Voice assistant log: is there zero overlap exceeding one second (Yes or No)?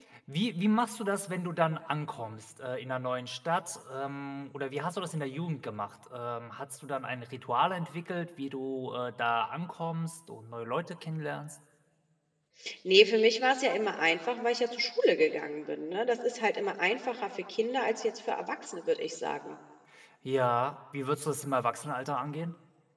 Yes